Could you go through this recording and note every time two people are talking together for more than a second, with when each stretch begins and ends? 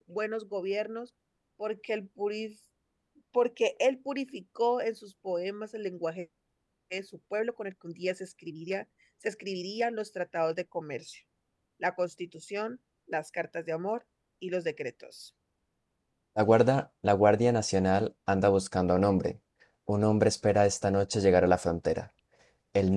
none

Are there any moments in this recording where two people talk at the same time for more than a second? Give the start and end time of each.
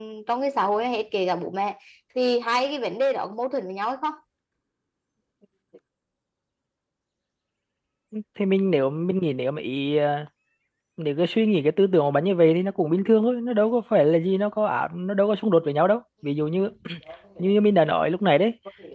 none

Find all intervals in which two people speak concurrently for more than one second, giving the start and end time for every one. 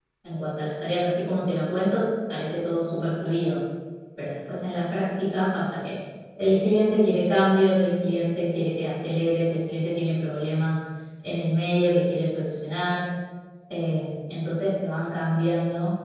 none

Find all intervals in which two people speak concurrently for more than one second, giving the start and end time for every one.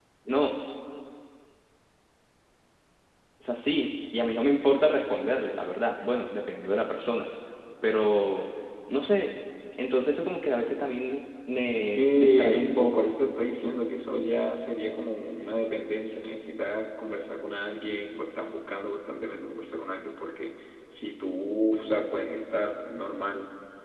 11.9-13.2

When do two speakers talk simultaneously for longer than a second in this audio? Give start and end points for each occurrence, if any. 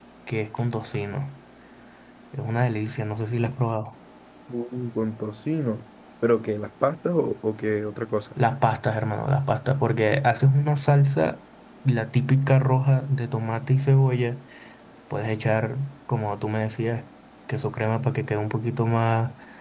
none

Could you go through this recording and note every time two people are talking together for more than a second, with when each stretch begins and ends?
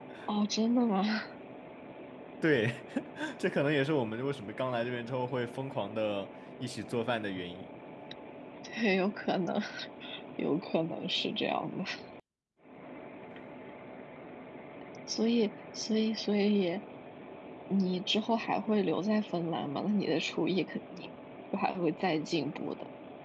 none

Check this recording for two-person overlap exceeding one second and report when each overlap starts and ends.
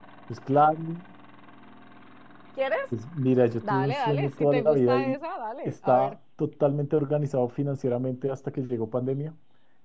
3.6-5.2

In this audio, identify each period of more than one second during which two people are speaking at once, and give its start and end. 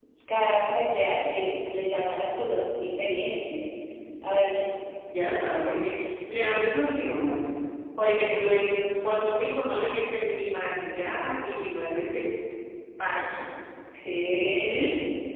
none

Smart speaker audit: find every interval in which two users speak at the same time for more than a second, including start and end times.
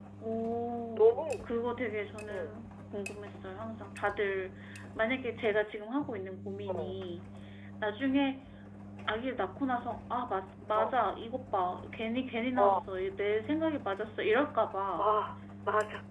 none

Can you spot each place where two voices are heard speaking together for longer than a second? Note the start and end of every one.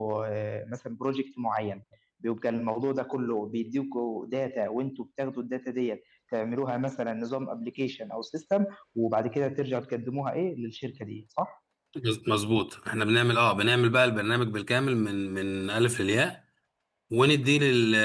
none

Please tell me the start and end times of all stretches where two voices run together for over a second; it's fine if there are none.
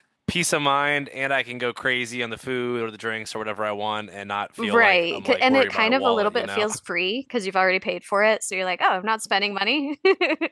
4.6-6.7

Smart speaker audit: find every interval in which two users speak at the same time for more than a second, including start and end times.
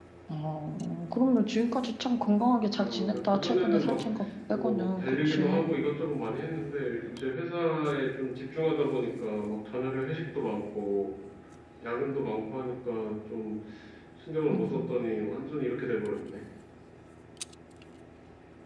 2.8-4.0, 4.5-5.8

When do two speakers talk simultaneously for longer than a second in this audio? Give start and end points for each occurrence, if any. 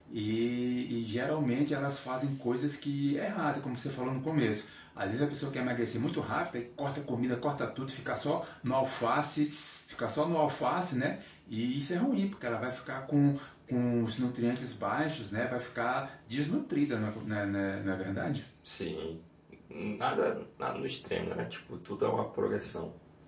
none

